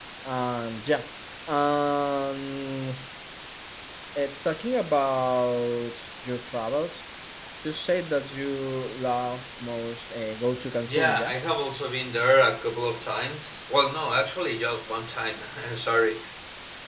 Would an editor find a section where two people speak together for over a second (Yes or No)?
No